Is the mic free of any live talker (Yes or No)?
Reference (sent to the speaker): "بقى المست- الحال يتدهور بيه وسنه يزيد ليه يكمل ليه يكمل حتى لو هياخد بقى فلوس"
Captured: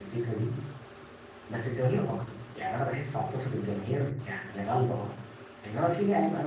No